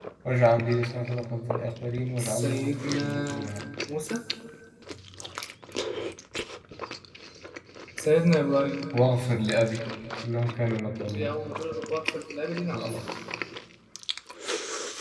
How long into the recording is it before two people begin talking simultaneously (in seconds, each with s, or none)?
2.2 s